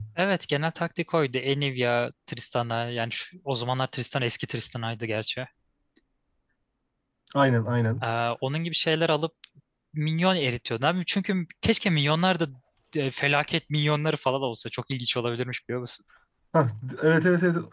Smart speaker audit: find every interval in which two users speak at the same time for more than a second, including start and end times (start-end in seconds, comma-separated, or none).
none